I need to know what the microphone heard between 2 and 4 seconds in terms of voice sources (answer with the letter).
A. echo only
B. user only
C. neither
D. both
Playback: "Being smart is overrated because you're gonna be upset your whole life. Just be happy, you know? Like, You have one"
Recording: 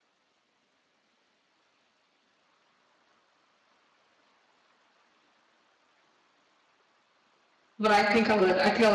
C